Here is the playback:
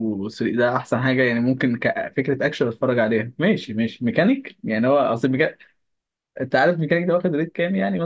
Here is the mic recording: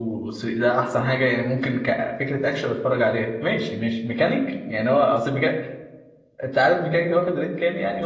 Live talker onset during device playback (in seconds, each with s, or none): none